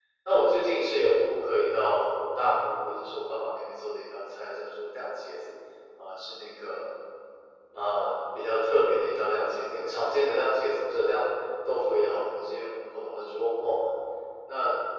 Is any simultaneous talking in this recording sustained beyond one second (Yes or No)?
No